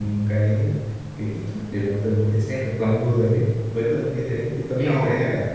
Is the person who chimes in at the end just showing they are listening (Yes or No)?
No